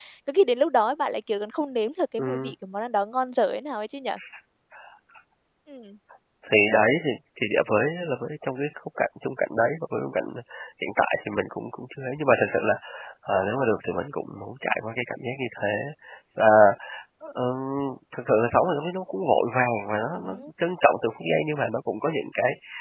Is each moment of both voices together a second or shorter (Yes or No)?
Yes